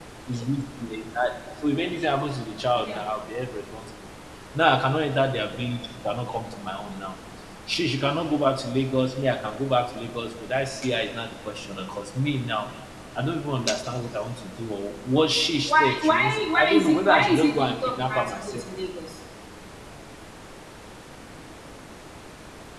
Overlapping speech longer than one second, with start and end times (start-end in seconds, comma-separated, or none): 15.7-18.6